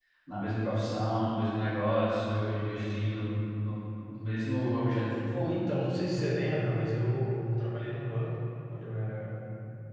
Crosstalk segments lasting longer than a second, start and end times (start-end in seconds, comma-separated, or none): none